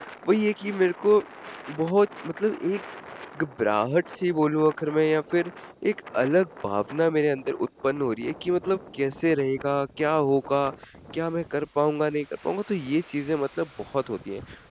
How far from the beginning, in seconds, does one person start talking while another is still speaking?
none

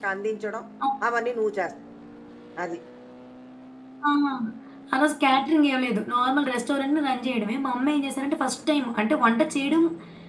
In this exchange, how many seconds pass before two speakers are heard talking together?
none

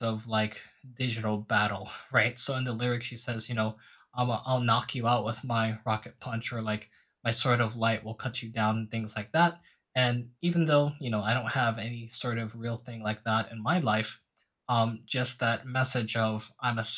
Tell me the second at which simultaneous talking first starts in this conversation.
none

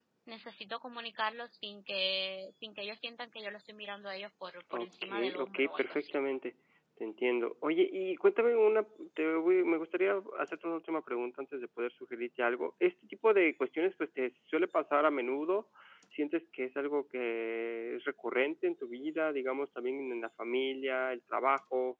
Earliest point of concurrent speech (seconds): 4.7 s

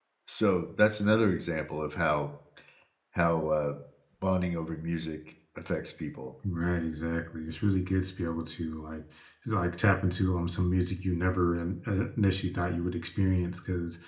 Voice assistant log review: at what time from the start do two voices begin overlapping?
none

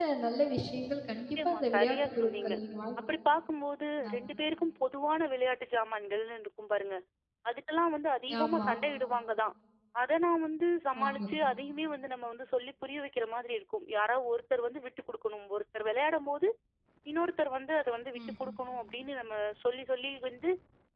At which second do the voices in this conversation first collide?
1.1 s

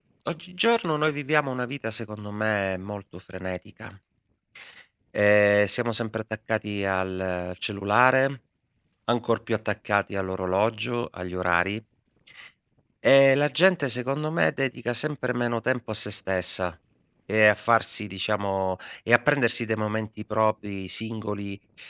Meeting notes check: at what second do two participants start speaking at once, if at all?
none

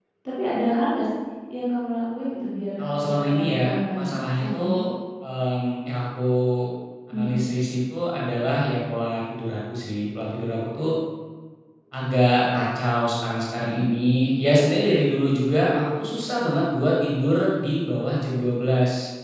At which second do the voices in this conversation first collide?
2.8 s

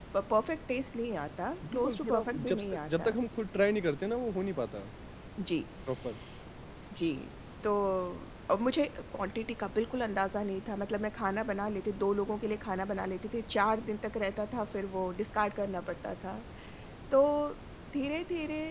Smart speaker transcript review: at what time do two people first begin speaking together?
1.6 s

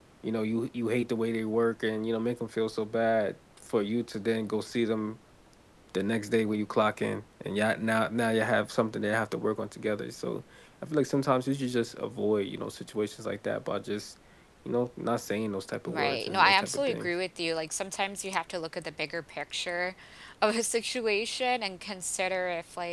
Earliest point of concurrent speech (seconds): 15.9 s

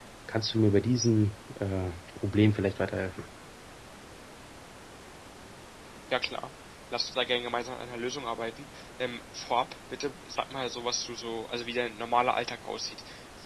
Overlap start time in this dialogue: none

